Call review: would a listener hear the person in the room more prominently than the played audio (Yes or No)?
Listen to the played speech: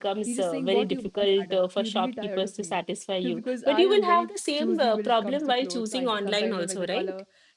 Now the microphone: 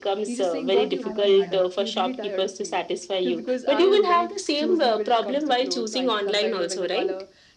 No